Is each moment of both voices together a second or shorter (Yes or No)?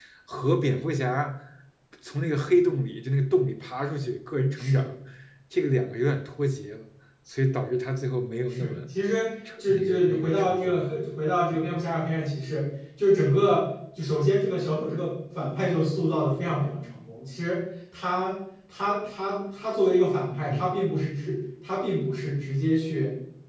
No